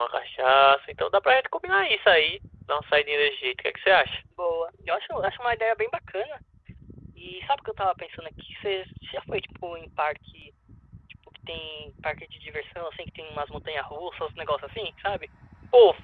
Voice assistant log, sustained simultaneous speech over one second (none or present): none